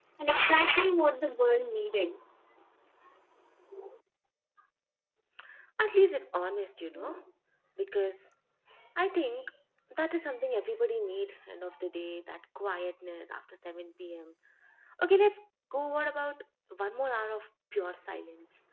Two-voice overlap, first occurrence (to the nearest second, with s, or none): none